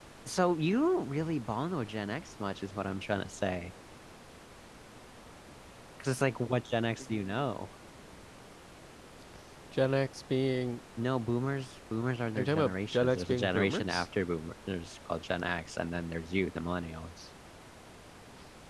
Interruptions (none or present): present